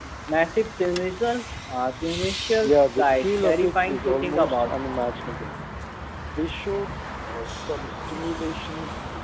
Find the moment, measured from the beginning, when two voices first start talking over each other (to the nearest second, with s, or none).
3 s